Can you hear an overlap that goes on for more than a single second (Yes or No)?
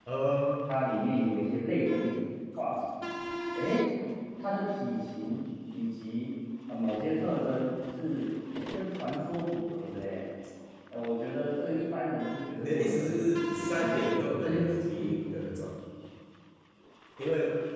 Yes